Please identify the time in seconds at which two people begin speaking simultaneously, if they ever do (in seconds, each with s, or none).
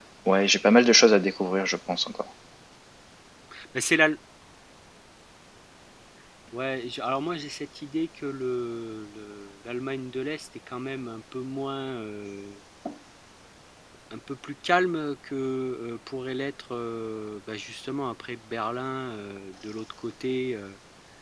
none